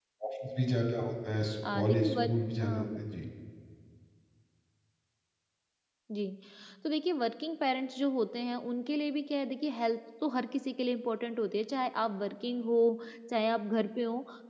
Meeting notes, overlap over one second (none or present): present